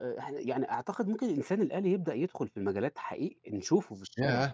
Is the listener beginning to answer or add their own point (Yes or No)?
Yes